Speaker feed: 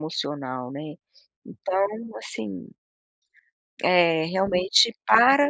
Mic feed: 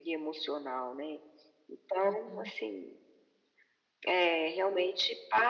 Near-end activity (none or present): present